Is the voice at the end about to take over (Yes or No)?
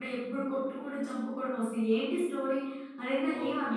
Yes